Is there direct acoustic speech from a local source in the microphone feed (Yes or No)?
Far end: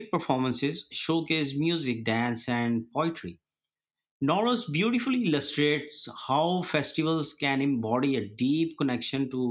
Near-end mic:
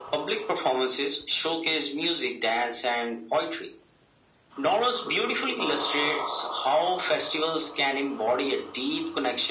No